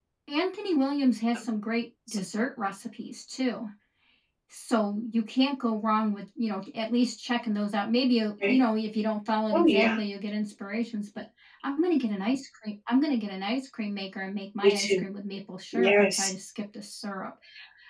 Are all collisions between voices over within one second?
Yes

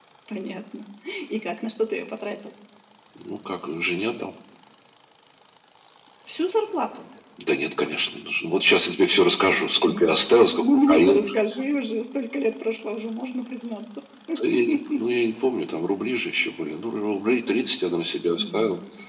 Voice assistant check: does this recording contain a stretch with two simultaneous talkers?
Yes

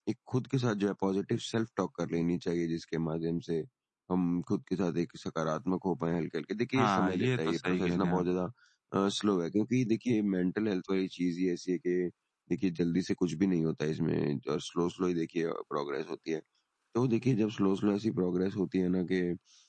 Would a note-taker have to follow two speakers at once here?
Yes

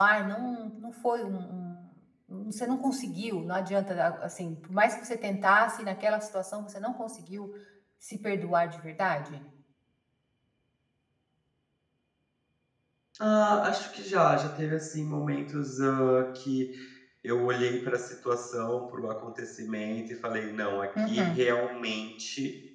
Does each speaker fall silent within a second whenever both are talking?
Yes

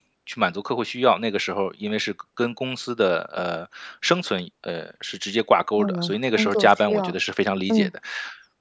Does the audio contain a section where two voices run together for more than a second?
Yes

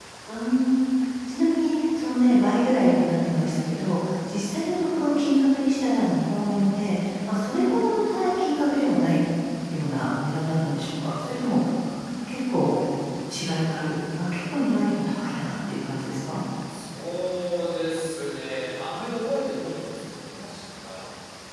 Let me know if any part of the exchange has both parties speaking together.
No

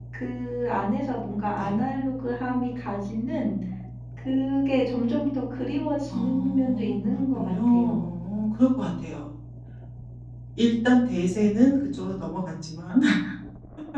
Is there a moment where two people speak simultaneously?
Yes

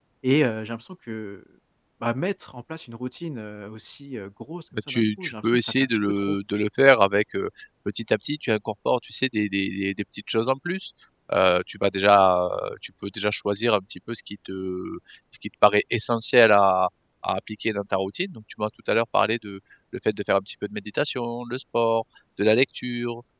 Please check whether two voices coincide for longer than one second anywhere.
Yes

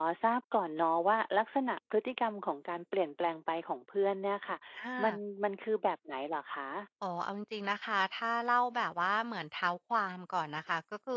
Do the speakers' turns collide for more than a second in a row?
No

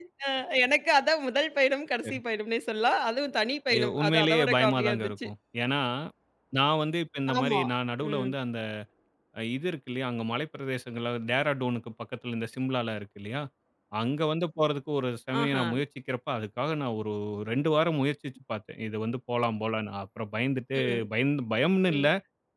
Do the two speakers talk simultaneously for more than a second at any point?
Yes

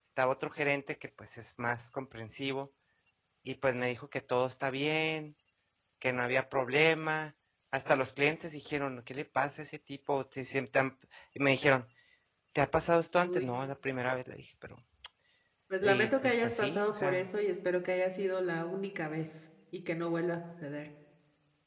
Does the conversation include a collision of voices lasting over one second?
Yes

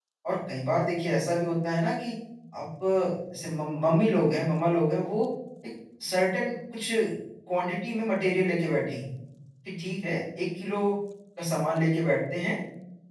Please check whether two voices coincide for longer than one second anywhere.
No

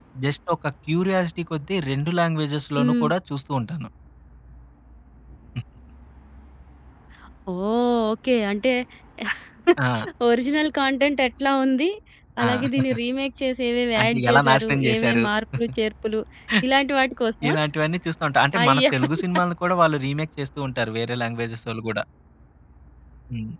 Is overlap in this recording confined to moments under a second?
No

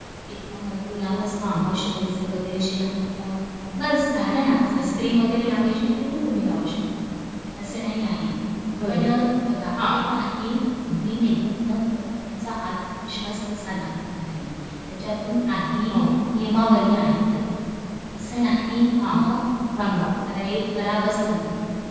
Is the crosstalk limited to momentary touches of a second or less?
Yes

